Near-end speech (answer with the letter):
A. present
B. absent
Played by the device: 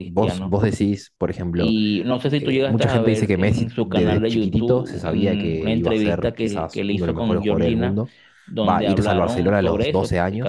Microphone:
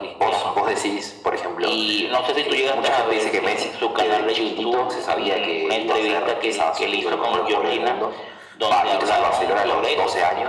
B